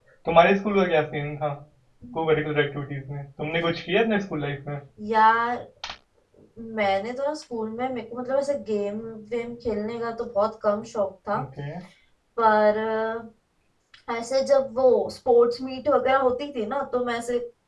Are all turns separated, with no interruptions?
Yes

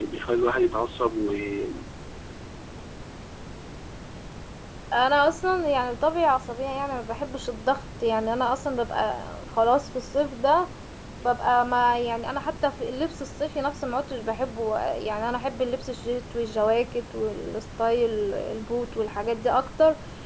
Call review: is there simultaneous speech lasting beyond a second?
No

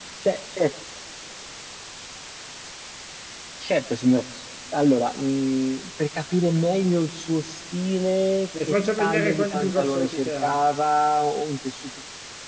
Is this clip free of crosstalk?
No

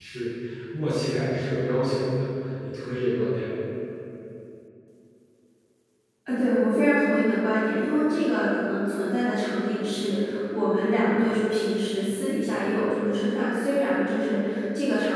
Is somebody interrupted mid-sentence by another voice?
No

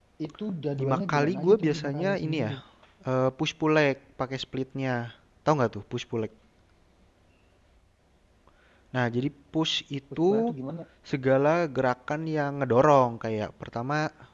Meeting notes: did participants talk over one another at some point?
Yes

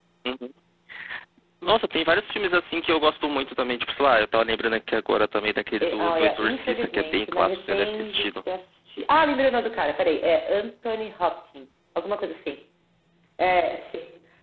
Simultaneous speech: Yes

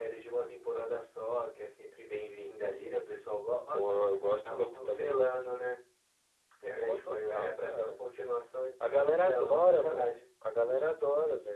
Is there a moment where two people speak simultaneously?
Yes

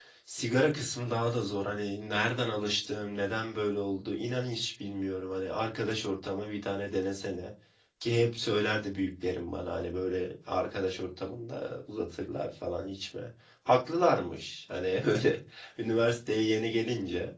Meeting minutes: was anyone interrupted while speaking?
No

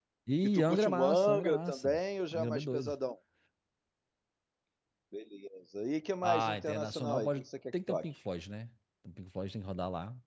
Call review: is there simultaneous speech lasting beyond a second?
Yes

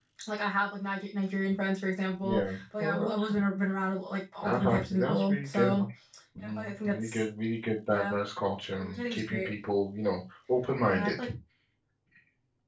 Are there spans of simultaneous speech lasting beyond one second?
Yes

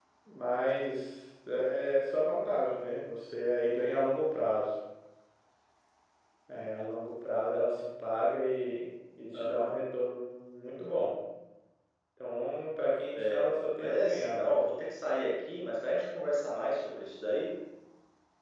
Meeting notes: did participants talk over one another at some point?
Yes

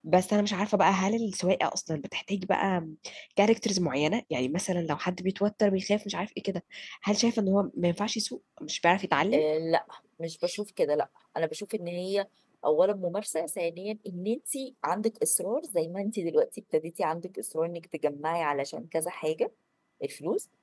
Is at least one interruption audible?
No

